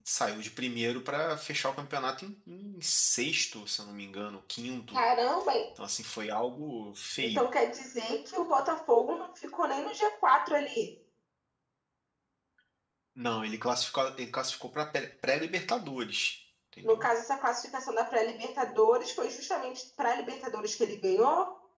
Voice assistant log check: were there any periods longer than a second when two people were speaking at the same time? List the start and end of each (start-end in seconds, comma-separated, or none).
none